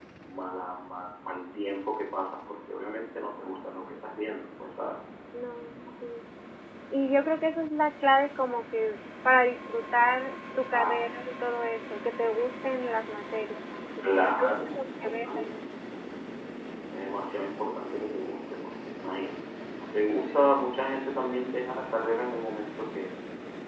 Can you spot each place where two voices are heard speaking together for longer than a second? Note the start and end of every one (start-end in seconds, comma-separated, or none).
14.2-15.4